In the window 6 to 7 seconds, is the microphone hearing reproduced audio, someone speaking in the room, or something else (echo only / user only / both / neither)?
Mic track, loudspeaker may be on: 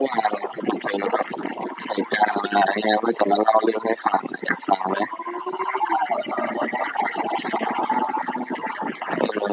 neither